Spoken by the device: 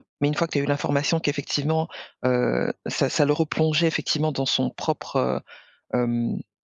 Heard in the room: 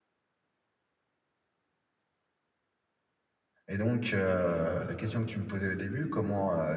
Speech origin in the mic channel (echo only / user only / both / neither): user only